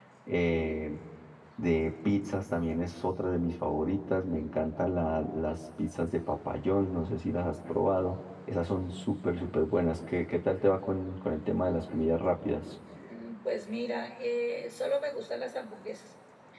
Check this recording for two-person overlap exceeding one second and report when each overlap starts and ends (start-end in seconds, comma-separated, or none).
none